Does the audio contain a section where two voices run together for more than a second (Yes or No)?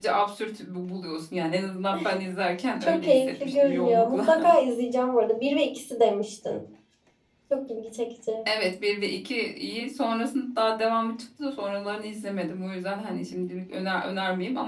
Yes